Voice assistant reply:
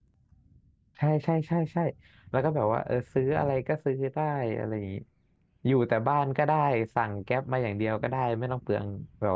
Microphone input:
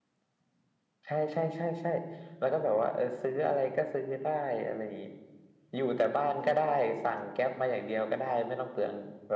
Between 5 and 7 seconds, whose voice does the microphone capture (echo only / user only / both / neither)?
both